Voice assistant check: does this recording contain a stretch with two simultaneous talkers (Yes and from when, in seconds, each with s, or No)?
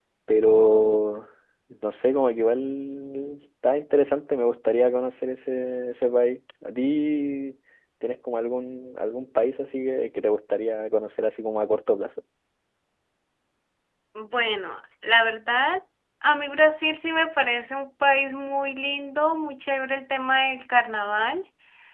No